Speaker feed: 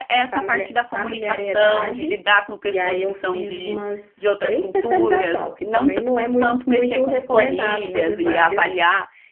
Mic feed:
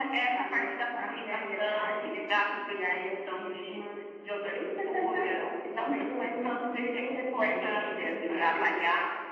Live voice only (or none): none